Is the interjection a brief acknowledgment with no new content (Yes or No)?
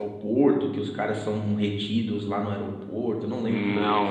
No